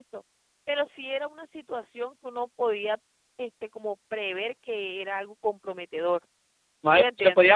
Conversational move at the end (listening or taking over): taking over